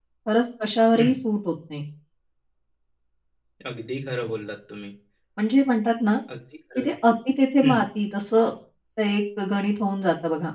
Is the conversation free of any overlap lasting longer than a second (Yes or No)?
Yes